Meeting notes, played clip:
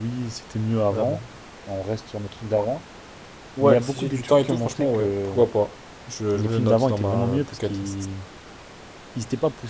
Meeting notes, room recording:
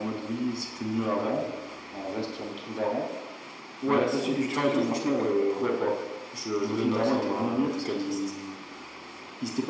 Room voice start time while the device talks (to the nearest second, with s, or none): none